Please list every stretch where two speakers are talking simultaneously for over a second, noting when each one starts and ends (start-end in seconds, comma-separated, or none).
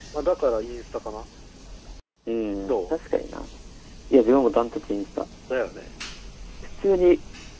none